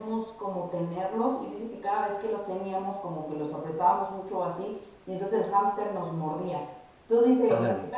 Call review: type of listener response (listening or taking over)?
listening